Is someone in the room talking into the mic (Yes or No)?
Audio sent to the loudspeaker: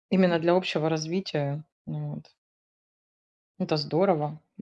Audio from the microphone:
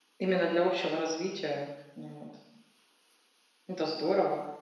No